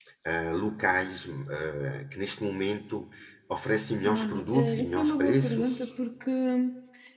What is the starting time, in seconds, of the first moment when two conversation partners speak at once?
4.0 s

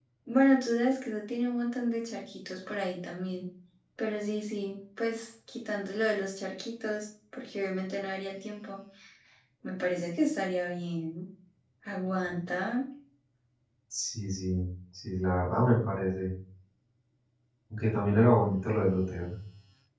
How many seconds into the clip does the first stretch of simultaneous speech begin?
none

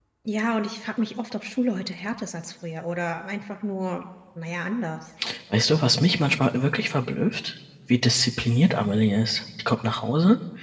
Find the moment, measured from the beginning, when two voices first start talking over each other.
none

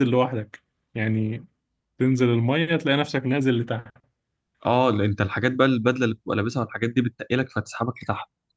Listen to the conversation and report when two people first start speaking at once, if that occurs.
none

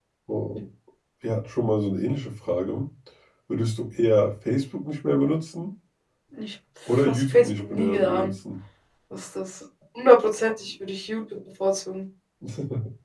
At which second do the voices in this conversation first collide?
7.0 s

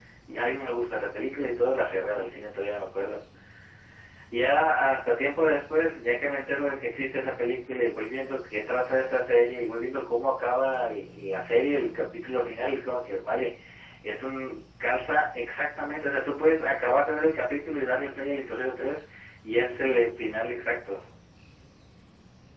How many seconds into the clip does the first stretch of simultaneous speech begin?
none

